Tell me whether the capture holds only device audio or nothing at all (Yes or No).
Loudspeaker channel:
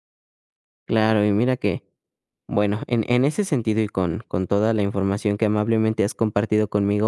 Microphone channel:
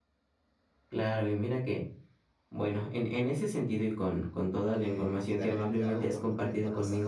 No